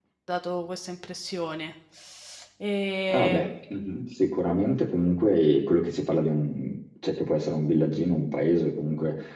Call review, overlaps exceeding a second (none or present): none